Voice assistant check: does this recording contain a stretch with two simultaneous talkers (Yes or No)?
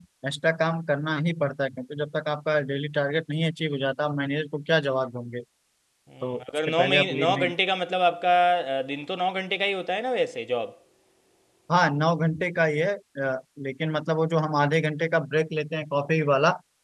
Yes